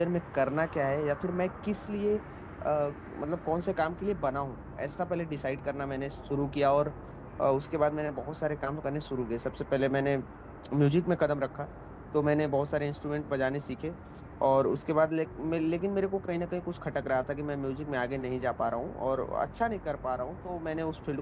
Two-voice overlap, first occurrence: none

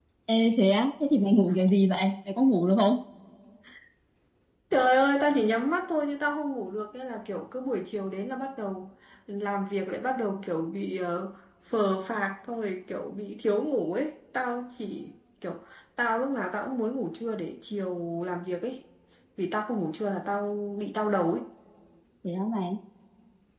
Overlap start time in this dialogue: none

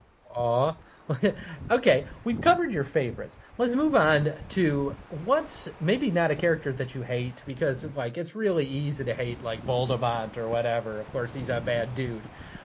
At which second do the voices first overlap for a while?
none

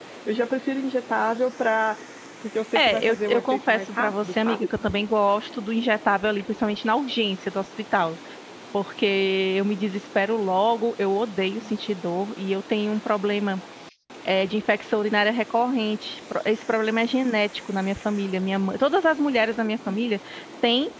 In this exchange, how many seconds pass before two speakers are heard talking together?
3 s

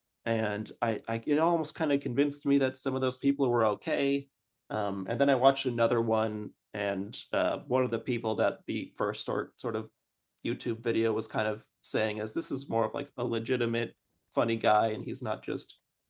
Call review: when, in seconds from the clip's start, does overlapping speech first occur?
none

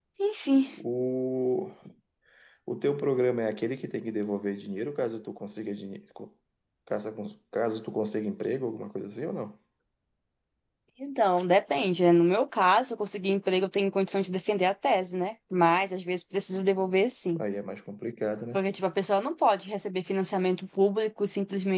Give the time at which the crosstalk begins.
none

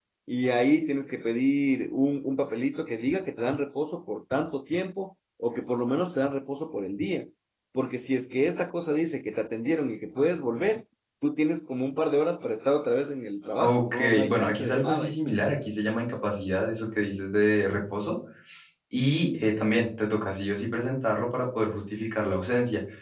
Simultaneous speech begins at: 14 s

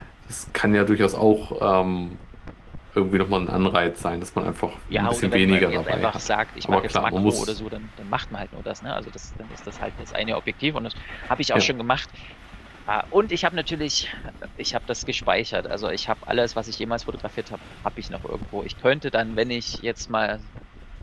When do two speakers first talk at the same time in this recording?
5 s

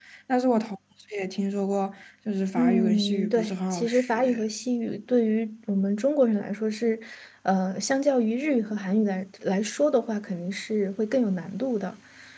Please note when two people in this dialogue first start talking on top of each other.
3 s

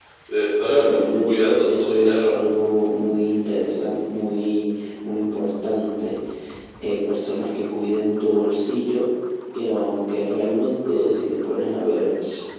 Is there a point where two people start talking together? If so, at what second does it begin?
1 s

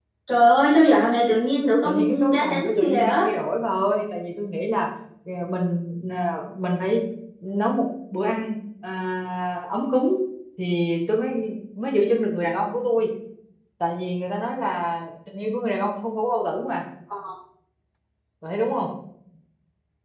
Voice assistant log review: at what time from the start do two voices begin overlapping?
2 s

